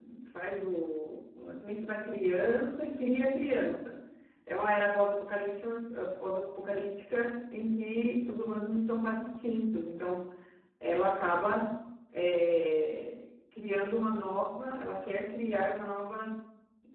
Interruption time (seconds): none

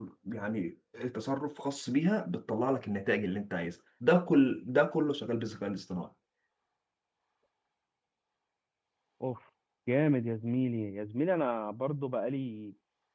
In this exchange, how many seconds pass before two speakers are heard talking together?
none

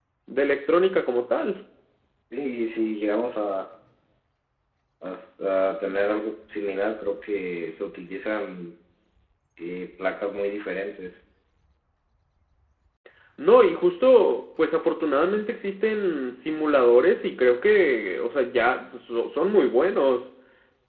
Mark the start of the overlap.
none

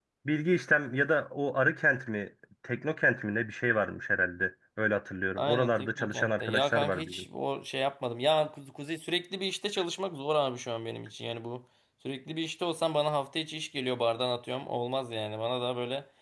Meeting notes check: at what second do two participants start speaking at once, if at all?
5.4 s

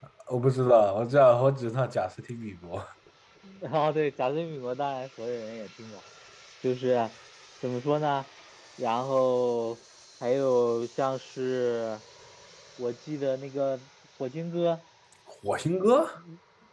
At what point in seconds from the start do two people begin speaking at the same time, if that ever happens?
none

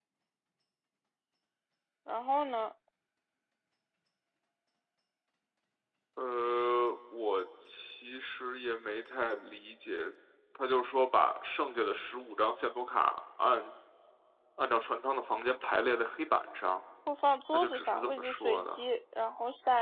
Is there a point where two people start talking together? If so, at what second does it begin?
17.5 s

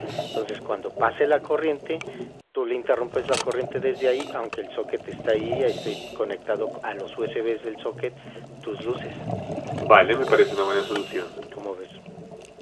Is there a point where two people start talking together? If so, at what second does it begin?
none

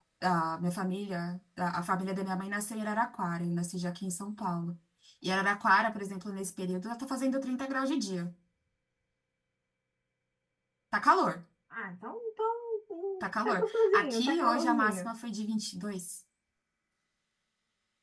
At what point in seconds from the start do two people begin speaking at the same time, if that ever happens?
13.2 s

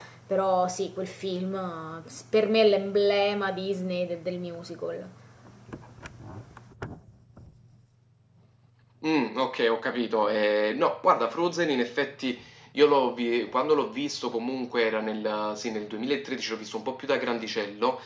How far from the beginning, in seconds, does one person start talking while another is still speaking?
none

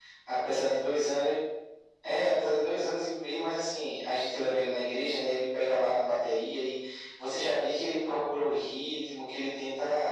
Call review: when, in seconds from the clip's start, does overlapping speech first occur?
none

